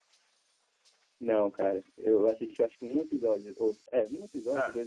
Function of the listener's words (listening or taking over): taking over